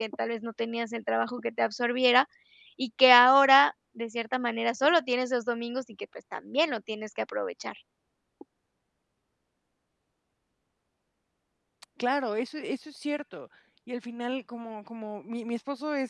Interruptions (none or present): none